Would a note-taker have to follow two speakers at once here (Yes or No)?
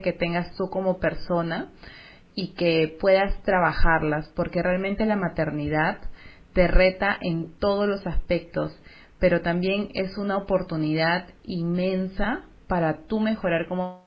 No